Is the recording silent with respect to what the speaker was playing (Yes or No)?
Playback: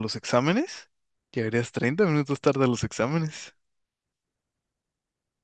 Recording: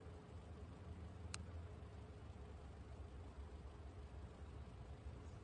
Yes